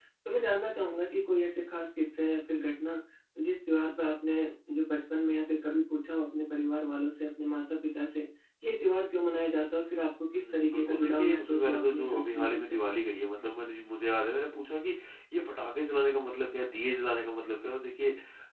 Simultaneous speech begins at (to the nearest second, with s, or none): 10 s